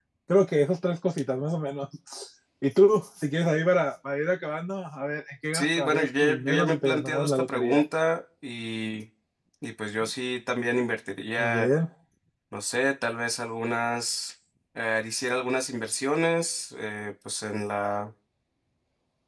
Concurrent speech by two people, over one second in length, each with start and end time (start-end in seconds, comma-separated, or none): 5.5-7.8